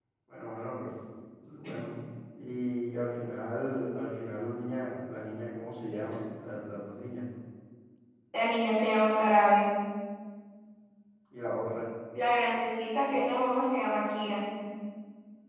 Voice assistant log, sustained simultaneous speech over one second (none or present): none